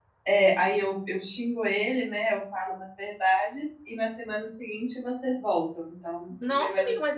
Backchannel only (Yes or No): No